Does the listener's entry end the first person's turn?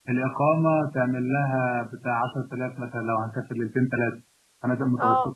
Yes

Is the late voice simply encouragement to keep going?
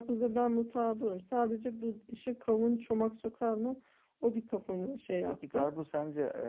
No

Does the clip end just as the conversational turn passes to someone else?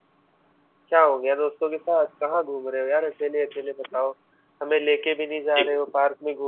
No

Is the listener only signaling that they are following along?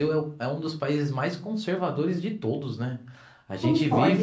Yes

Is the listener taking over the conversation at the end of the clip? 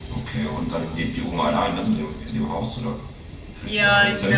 Yes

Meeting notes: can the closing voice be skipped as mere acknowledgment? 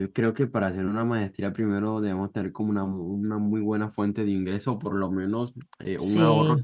Yes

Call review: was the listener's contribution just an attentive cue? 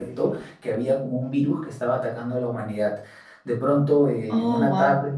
Yes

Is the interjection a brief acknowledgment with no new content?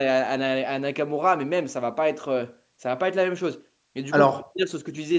Yes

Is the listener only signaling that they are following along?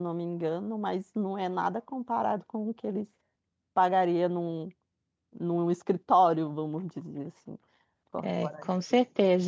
No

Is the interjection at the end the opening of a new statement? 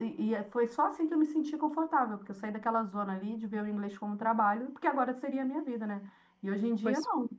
No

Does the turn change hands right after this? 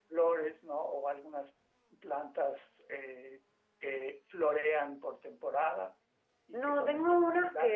Yes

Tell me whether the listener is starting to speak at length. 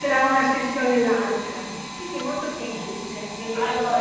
No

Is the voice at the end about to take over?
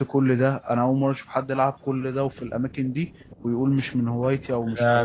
Yes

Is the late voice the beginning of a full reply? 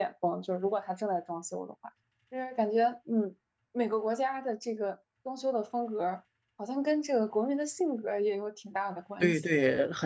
Yes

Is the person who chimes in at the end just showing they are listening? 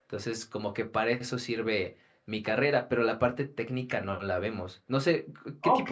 No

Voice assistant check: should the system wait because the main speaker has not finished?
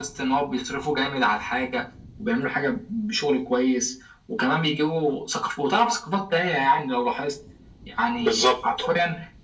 Yes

